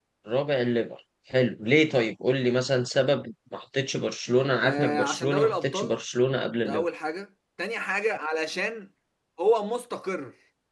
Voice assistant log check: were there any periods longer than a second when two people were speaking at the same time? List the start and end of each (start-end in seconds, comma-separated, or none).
4.6-5.9